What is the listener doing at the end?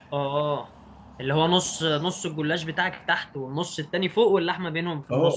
taking over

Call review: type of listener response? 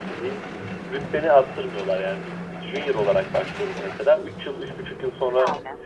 listening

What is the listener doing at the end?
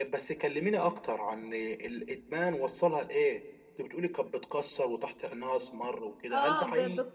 taking over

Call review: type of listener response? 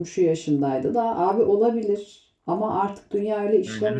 taking over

